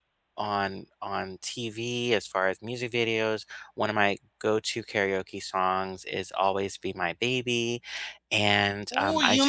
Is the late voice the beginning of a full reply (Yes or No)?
Yes